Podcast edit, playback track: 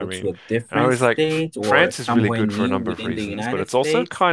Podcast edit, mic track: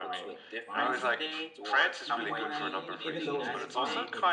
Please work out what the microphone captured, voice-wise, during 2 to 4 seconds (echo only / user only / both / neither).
both